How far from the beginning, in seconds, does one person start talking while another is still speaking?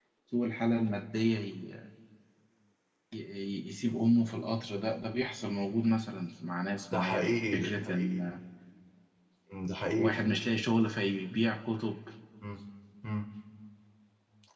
7 s

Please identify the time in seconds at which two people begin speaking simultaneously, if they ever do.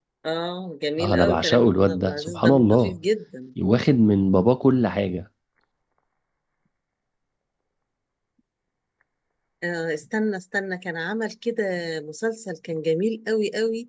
1 s

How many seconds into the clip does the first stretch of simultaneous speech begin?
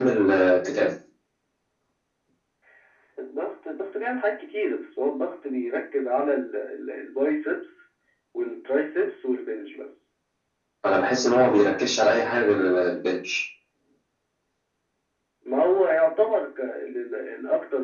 none

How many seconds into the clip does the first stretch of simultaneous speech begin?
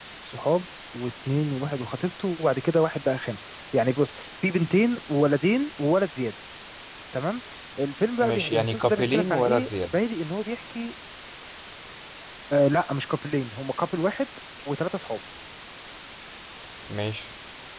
8 s

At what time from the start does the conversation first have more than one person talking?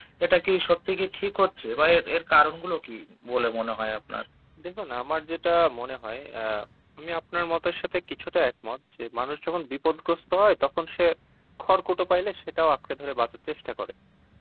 none

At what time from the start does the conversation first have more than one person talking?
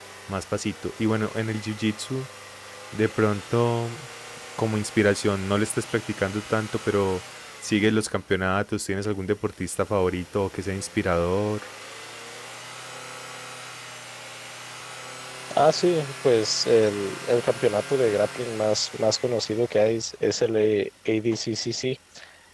none

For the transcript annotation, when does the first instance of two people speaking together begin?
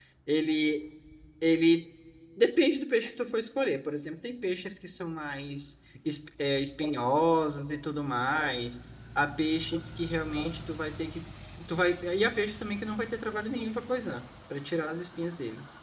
none

